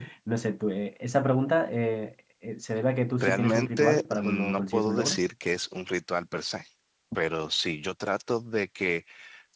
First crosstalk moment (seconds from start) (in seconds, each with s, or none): 3.2 s